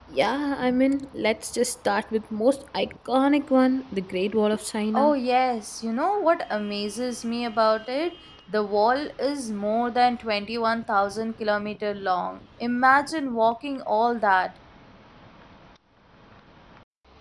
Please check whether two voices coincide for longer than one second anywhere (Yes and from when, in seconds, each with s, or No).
No